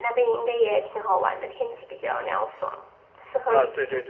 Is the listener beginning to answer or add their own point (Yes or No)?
Yes